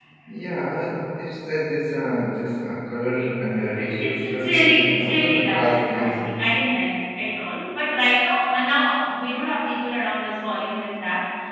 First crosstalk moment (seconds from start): 3.8 s

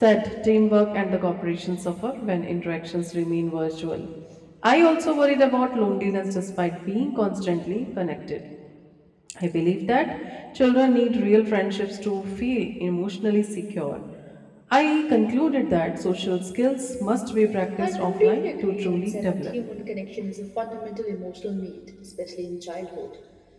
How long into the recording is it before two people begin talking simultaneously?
17.8 s

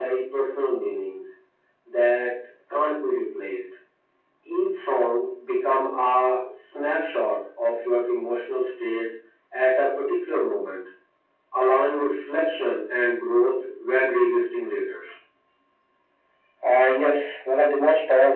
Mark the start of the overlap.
none

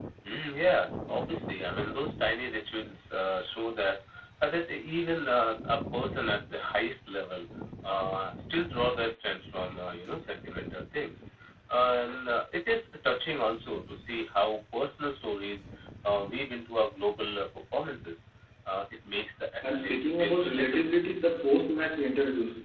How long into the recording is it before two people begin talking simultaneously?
19.6 s

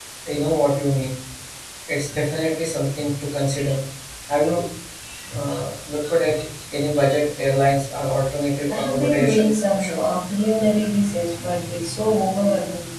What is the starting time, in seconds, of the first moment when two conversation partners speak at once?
8.7 s

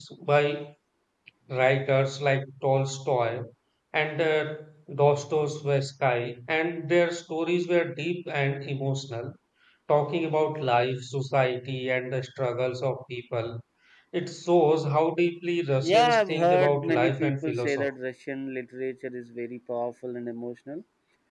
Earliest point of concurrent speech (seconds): 15.8 s

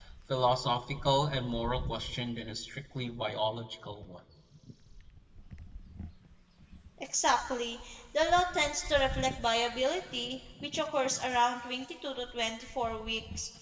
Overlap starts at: none

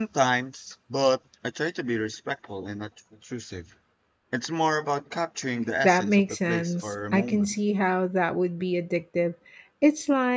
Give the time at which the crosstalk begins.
5.8 s

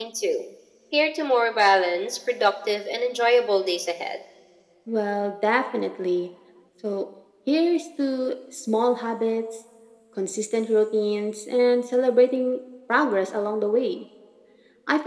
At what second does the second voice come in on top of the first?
none

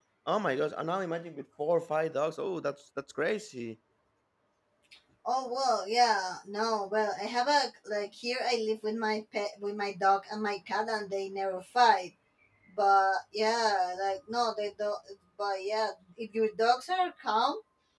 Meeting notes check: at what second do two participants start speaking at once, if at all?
none

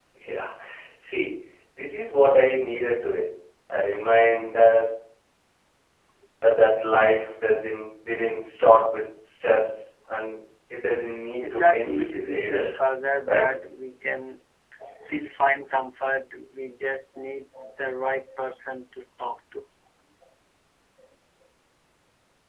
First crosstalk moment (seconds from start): 11.4 s

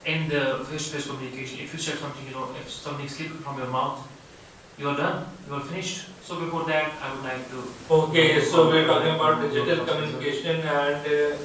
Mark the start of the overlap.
8.1 s

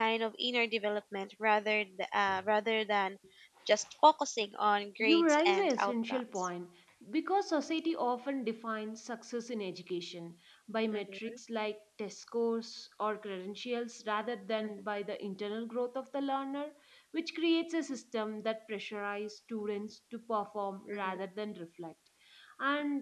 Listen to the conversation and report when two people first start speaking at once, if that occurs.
5.0 s

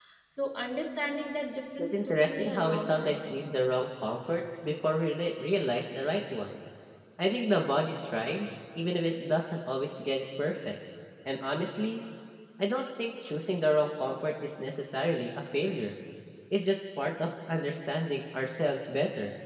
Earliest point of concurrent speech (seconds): 1.8 s

